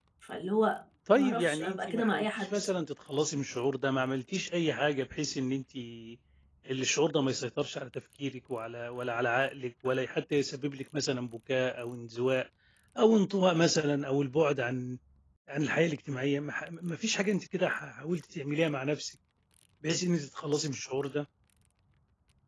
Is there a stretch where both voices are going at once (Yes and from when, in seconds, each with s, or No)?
Yes, from 1.2 s